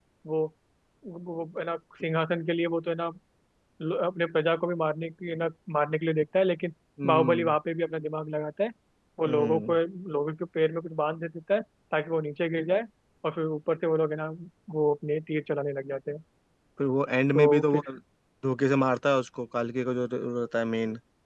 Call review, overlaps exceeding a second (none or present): none